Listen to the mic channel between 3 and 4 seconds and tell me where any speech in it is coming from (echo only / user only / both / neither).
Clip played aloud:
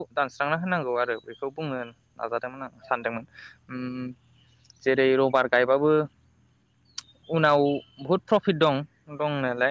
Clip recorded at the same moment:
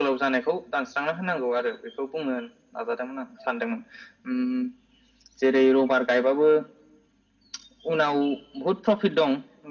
echo only